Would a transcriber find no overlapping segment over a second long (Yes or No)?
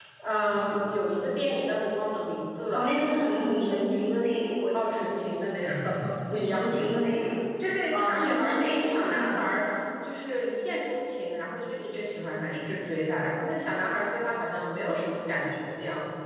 No